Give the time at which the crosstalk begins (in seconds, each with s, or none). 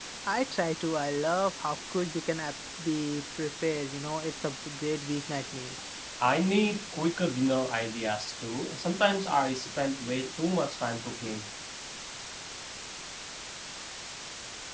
none